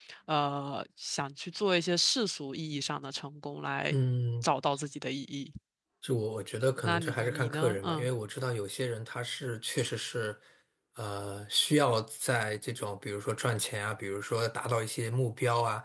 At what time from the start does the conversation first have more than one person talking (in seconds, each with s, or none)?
6.8 s